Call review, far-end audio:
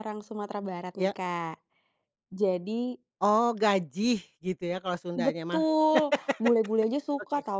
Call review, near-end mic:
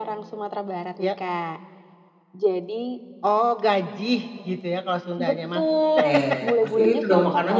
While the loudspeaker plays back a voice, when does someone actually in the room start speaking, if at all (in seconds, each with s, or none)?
6.0 s